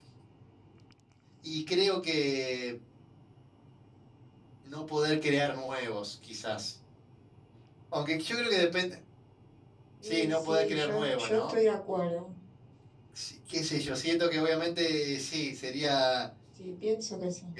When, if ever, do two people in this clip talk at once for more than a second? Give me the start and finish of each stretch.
10.0-11.6

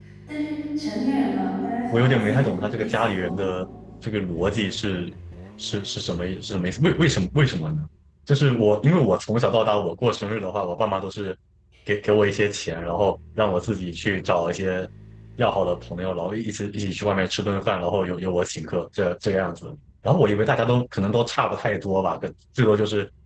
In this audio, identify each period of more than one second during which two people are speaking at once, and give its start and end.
1.9-3.5

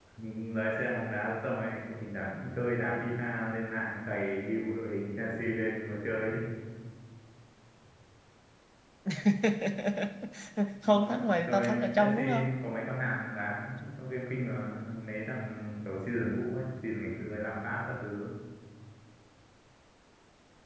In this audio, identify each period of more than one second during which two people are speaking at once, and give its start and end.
10.8-12.5

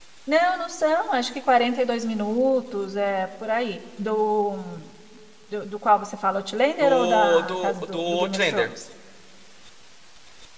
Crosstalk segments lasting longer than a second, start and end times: 6.8-8.7

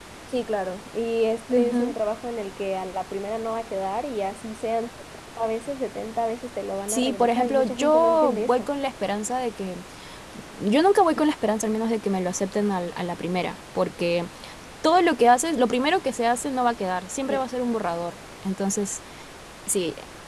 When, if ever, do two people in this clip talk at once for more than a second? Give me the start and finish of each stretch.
6.9-8.7

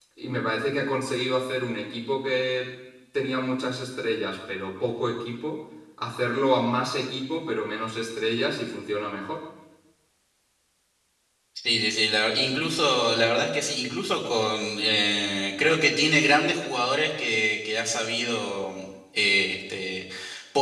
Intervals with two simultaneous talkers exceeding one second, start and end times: none

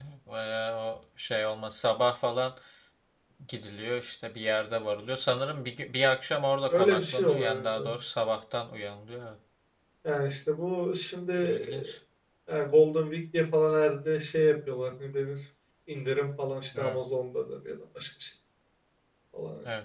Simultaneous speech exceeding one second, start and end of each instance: 6.7-8.0

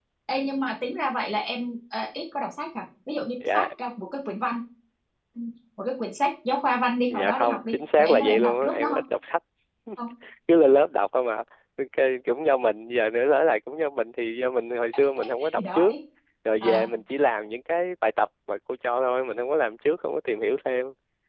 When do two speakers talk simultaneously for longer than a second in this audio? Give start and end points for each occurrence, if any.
7.1-9.0

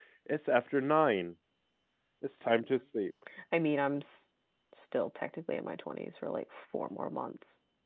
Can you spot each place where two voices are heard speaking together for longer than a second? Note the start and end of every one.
none

